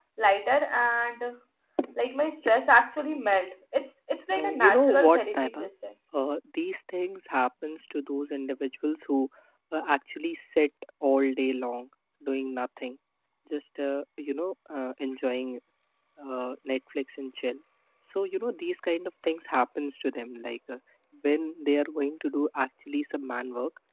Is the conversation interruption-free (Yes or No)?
No